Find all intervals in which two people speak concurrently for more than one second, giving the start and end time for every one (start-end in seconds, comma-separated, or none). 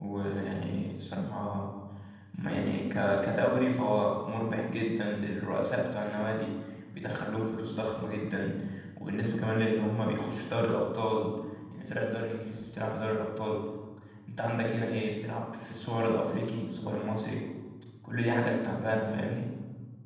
none